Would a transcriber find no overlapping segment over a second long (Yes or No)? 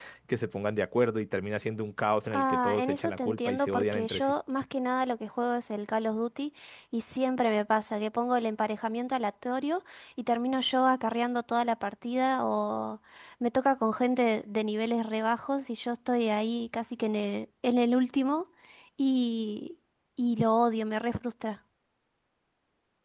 No